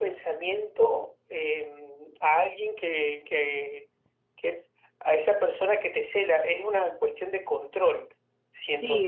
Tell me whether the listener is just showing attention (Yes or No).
No